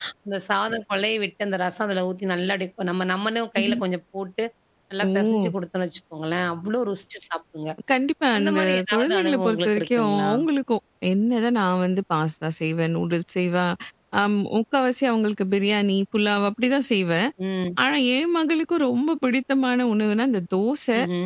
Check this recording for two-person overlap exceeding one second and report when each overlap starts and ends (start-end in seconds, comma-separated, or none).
8.4-10.3